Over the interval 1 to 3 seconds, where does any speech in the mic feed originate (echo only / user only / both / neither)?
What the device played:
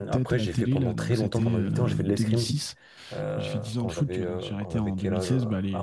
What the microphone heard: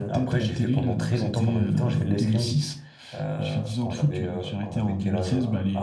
echo only